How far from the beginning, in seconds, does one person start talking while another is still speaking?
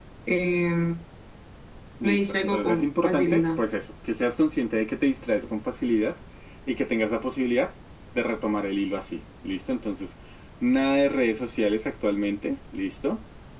2 s

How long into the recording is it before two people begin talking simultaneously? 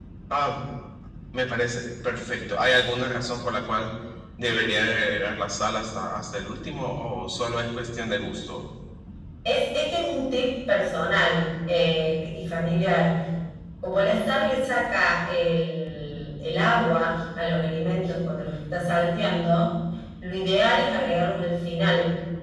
none

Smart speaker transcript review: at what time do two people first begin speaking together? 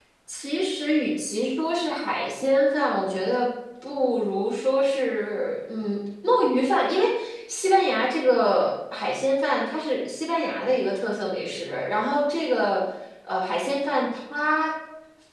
none

